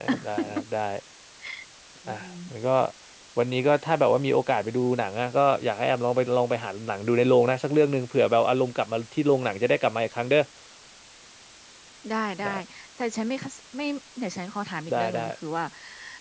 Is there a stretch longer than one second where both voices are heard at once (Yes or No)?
No